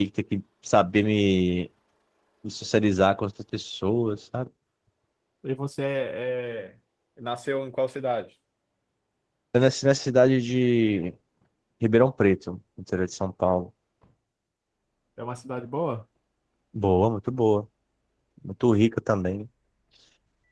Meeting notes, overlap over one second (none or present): none